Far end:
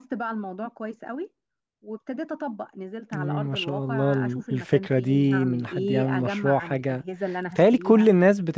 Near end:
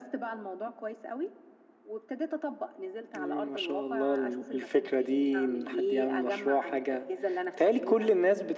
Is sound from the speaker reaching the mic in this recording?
Yes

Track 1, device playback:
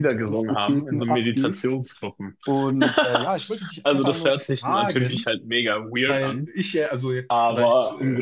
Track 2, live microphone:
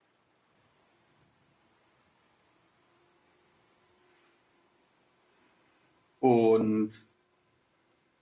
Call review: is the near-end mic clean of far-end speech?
Yes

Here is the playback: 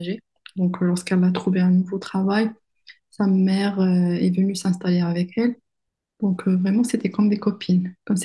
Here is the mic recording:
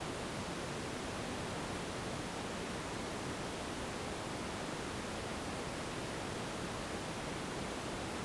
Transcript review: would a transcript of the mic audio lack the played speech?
Yes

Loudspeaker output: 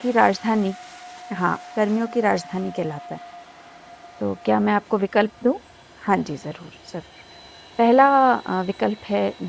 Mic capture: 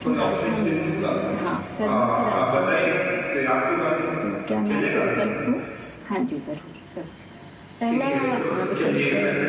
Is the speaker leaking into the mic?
Yes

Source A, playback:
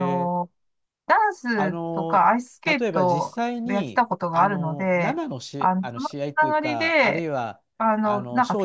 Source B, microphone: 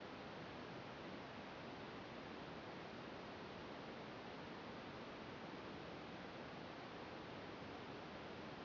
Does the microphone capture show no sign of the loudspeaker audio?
Yes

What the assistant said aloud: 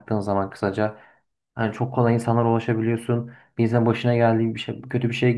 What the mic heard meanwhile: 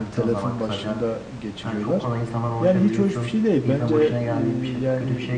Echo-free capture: No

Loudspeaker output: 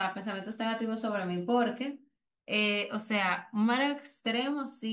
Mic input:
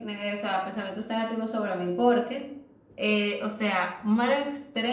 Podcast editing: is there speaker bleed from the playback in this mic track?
Yes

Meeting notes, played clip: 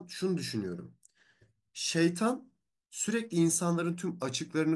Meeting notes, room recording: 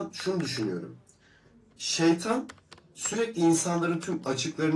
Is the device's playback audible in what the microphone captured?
Yes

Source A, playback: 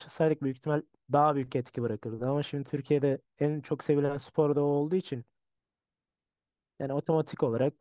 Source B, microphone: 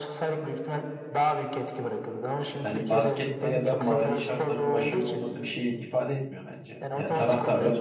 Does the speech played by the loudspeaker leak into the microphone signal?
Yes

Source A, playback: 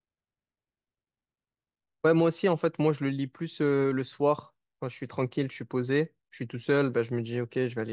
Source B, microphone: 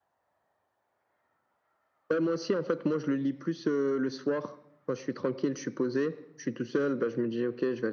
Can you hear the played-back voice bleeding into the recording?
Yes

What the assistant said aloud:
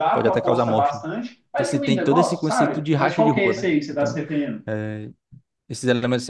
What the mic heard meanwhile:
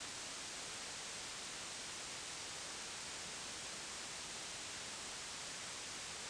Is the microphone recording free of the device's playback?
Yes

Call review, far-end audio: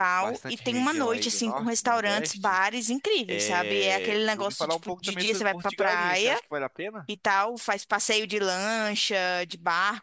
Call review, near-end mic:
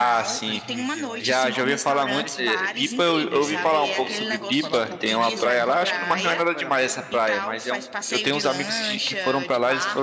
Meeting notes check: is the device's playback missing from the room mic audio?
No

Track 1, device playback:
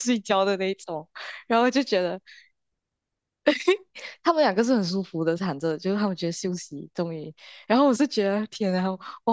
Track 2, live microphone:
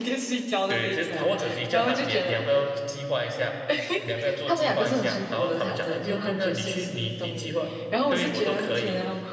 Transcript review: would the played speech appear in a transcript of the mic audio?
Yes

